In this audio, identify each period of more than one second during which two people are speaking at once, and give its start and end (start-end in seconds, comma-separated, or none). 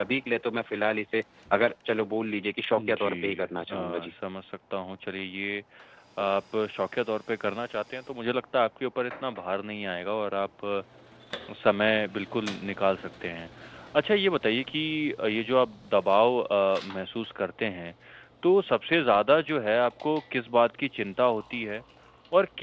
2.8-4.1